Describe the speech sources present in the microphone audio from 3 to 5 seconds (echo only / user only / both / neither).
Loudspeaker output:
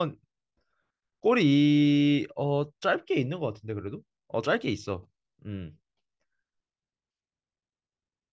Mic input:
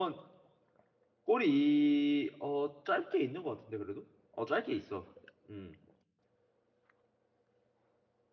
echo only